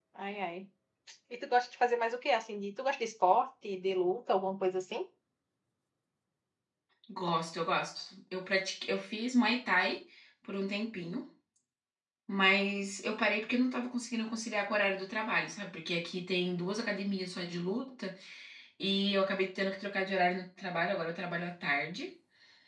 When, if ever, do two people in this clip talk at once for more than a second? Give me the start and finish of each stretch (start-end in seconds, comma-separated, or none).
none